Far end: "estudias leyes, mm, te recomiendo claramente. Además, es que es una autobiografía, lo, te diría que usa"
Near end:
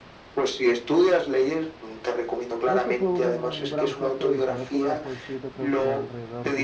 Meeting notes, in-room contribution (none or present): present